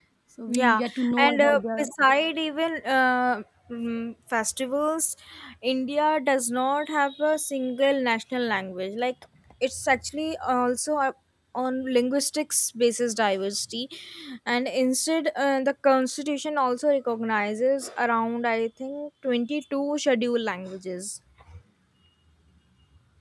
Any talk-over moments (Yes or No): Yes